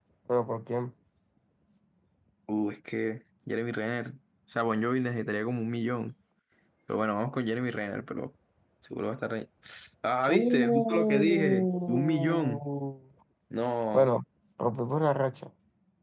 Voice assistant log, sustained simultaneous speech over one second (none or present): present